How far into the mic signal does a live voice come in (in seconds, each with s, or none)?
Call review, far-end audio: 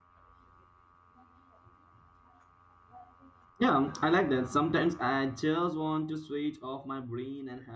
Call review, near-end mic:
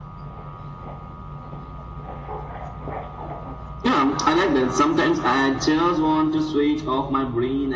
none